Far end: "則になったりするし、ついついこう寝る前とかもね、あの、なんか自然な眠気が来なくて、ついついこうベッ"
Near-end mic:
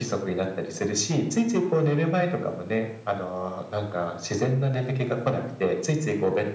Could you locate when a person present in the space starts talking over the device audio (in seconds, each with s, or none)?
none